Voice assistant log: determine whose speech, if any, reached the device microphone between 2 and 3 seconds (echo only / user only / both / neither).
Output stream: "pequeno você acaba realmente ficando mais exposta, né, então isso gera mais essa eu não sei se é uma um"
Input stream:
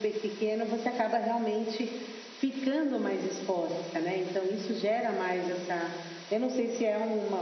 echo only